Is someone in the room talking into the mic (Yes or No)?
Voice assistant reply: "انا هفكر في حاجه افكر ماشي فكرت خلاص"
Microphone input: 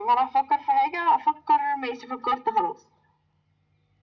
No